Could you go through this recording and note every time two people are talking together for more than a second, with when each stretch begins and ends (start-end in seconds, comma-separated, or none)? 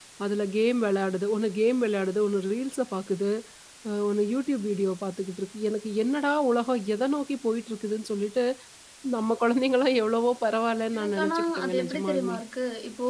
11.0-12.4